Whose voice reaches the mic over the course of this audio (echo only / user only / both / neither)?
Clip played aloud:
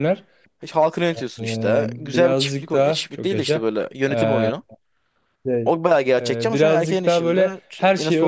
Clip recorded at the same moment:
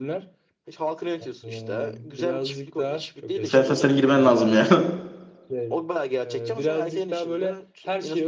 both